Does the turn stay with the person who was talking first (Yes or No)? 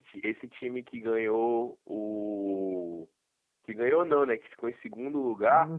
Yes